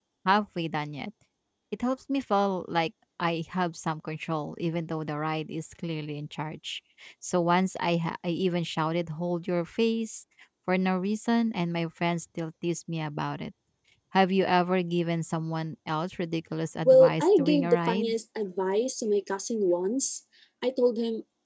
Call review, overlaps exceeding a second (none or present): present